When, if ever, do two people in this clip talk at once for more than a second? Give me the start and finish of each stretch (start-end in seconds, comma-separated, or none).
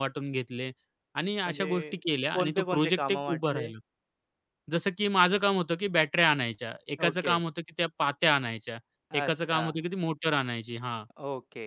2.3-3.7